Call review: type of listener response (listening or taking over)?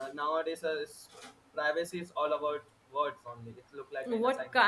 taking over